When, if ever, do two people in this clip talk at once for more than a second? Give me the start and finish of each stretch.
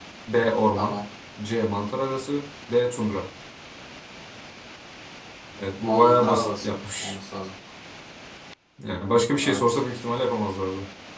5.8-7.2

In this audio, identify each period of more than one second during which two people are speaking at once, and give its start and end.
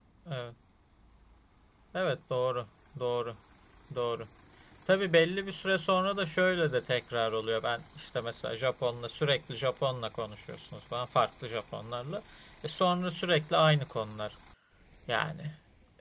none

